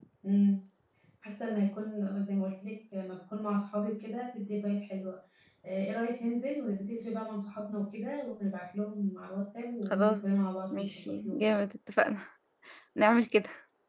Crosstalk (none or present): present